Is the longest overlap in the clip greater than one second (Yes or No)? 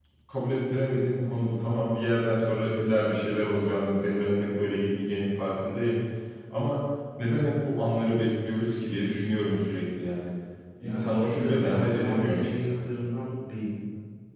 Yes